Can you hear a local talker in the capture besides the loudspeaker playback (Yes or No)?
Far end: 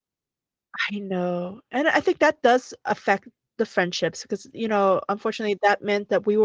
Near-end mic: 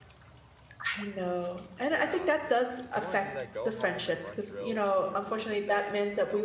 Yes